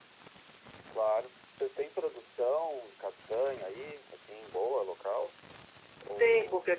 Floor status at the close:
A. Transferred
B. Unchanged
A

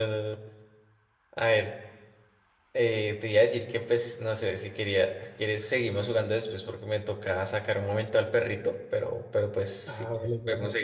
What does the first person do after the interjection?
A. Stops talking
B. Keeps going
A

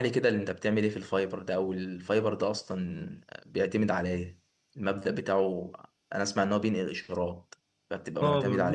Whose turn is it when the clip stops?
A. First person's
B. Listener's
B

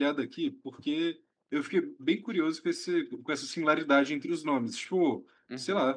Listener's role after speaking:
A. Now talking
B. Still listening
B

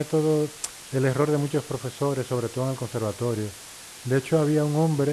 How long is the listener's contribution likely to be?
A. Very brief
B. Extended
A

